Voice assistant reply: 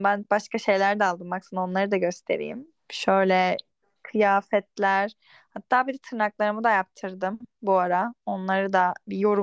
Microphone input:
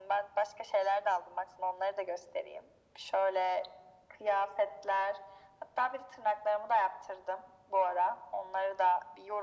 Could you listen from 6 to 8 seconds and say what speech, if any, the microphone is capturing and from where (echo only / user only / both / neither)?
echo only